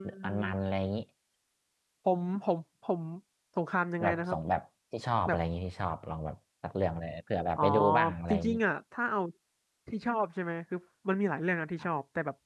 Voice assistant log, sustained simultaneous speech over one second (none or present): none